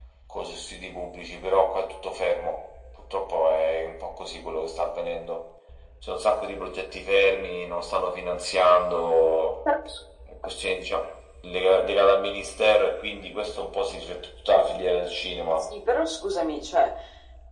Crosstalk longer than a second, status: none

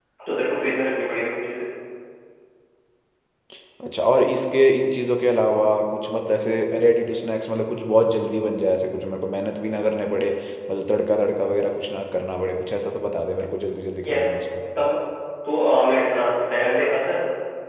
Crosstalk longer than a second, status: none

